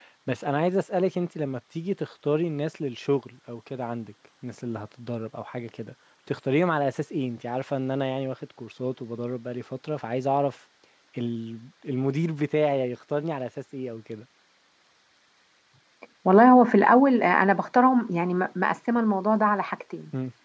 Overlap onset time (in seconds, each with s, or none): none